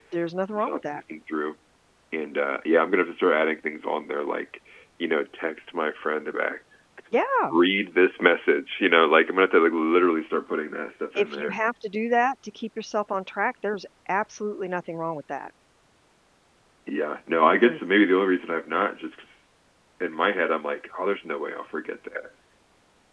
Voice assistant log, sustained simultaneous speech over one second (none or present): none